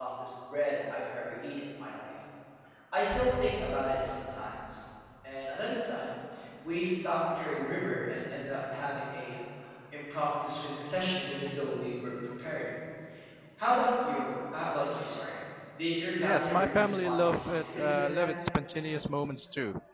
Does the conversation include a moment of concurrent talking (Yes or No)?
Yes